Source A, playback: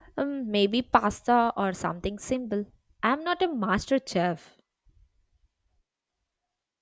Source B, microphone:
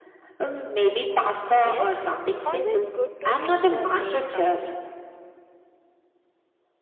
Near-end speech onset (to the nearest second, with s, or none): 2 s